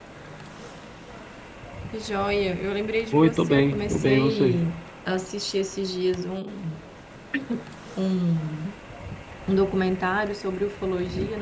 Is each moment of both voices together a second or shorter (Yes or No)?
No